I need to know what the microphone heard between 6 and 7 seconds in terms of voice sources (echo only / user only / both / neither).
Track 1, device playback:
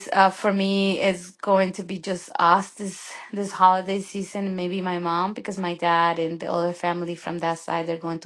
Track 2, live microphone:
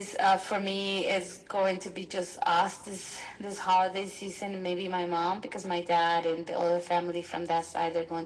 echo only